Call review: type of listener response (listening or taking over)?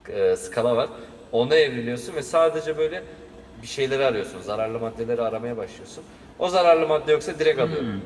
taking over